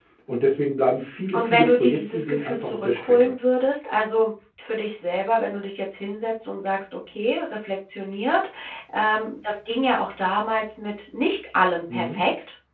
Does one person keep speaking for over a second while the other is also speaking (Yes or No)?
Yes